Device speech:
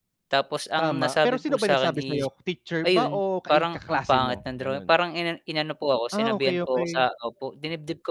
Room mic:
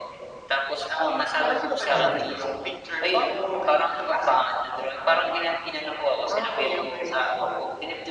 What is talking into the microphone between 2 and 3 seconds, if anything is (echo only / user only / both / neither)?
both